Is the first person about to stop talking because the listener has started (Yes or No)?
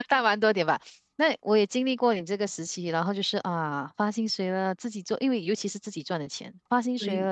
No